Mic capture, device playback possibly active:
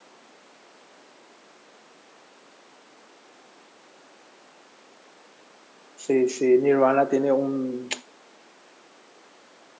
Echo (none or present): none